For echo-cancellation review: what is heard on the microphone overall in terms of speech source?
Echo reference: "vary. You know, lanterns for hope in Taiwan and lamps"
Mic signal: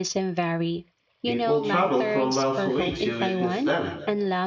both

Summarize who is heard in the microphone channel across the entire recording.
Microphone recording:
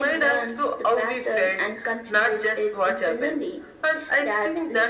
echo only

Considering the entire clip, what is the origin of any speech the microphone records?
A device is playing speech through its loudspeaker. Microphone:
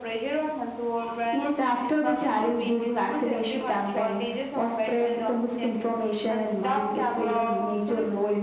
echo only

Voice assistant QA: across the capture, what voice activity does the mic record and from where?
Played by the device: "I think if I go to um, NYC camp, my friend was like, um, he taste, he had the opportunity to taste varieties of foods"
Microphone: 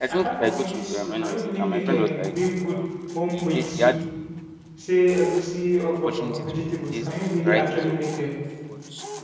both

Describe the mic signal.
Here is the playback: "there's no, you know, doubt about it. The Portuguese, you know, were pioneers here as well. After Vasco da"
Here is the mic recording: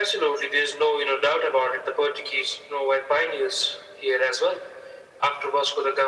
echo only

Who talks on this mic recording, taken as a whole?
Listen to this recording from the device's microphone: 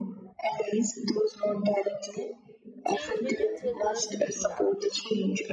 both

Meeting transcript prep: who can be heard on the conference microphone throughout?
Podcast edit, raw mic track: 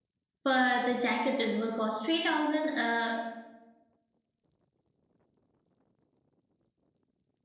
user only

